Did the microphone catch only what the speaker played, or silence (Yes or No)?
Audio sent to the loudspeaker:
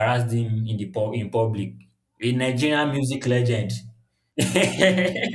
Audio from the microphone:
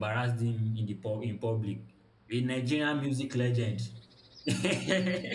Yes